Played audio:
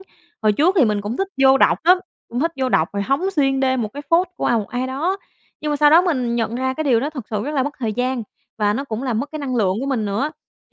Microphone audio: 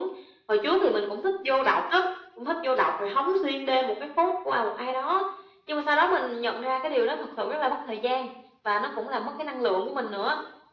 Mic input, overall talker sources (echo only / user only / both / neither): echo only